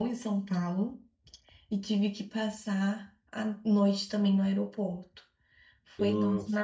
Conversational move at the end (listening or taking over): listening